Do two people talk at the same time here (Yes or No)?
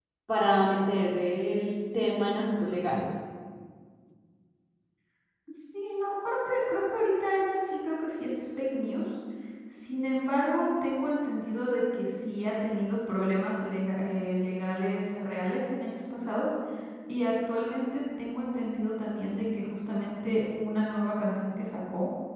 No